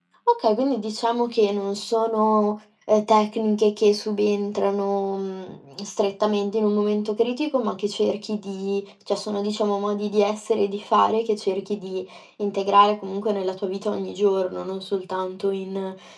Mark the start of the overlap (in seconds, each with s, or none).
none